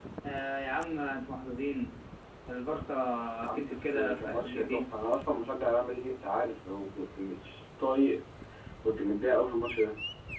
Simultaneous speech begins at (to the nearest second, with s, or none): 4 s